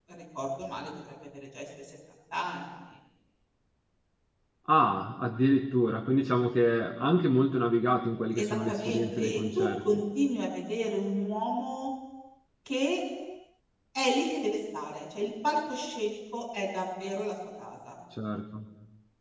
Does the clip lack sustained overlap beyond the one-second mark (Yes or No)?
No